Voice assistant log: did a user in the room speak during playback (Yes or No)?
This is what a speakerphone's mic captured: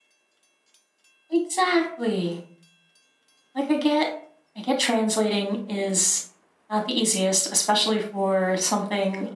No